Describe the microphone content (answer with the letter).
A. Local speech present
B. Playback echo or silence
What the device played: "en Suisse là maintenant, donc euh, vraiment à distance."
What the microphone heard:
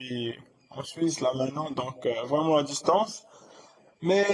B